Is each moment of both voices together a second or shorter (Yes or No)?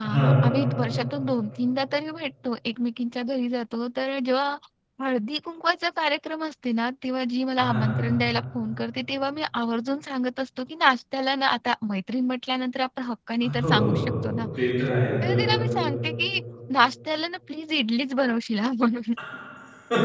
Yes